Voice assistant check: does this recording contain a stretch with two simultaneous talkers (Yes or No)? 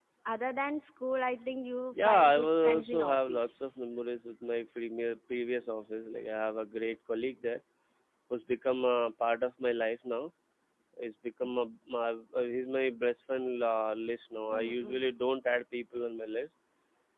Yes